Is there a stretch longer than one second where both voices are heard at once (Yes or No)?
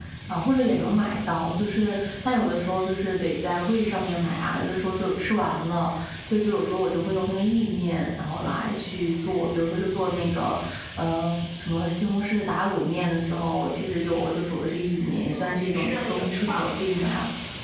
Yes